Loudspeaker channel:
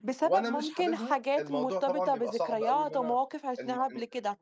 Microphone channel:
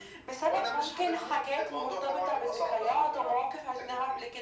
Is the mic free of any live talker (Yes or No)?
Yes